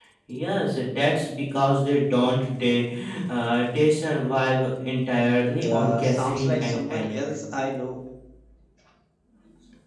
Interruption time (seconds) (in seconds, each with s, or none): 5.6 s